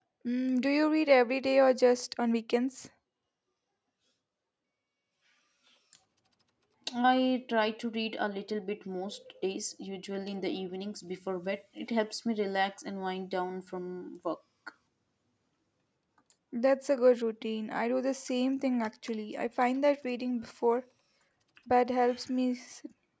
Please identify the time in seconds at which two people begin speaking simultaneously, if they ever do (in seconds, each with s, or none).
none